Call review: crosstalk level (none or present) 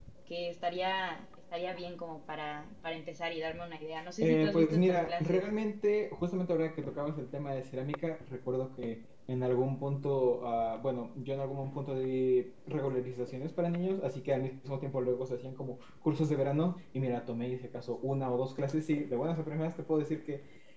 present